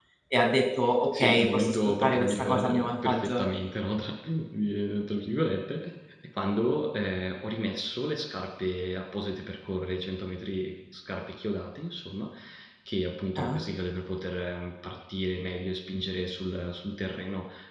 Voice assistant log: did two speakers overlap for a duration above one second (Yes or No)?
Yes